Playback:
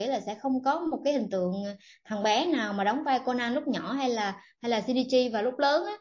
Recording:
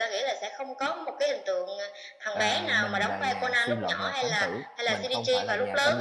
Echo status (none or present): present